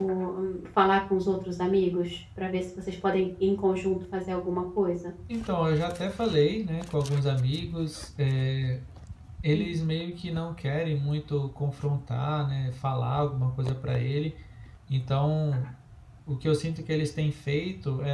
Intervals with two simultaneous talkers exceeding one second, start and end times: none

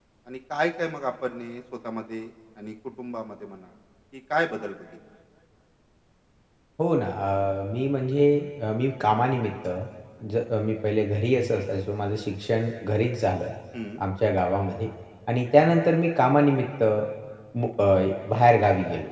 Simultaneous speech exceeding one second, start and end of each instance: none

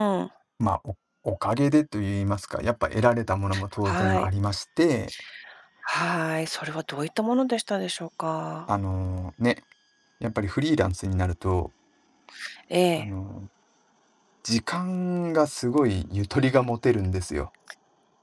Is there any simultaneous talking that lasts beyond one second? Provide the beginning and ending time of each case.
none

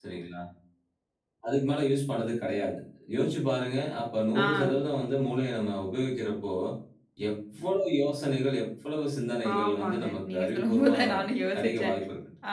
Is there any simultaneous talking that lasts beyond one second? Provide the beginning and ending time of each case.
9.6-11.0

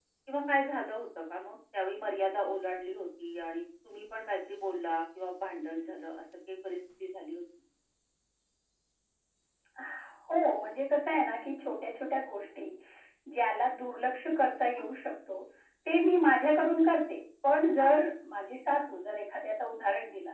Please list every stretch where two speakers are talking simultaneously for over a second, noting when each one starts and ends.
none

